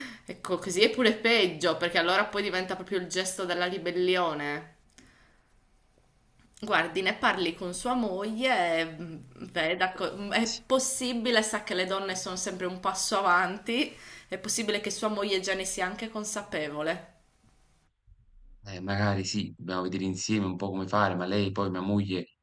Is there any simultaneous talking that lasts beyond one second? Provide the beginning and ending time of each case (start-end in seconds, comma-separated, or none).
none